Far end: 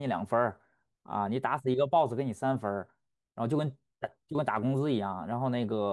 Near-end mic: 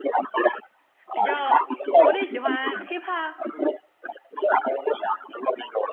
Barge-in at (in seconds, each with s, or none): 1.1 s